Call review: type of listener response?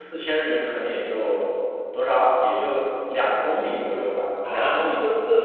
taking over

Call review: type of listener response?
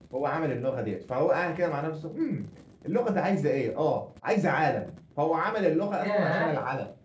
listening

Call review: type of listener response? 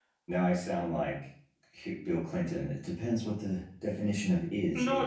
taking over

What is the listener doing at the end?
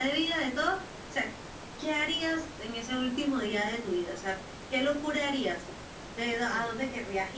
listening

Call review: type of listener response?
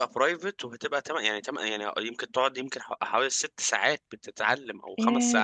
taking over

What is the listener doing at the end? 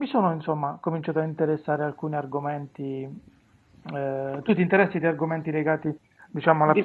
taking over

